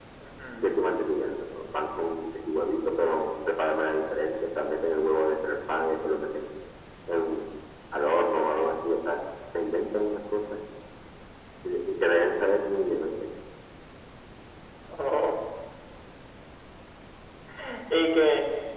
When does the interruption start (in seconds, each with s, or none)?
none